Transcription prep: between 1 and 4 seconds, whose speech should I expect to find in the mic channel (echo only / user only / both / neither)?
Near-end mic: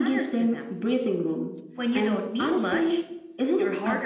echo only